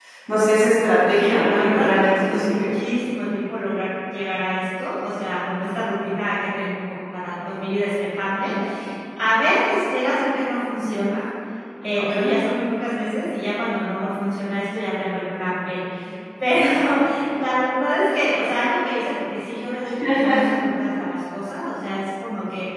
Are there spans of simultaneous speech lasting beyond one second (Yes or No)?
Yes